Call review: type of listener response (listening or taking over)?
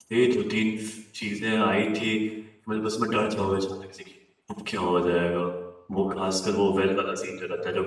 listening